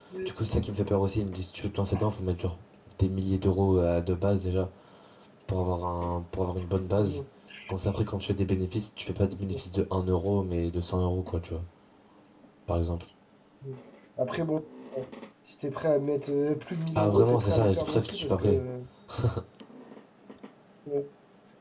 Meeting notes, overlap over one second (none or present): present